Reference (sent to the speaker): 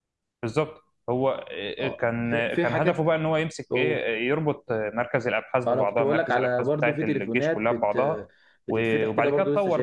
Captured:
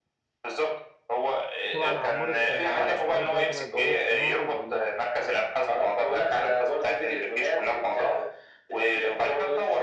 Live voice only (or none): تبع الاقمار الصناعيه مش عارف بقى هي تبع الذكاء الاصطناعي ولا لا